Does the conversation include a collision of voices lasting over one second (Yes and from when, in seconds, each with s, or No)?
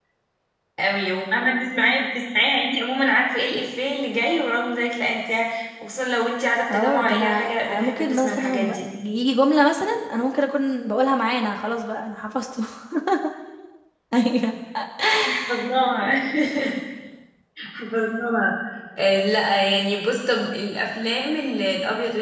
Yes, from 6.7 s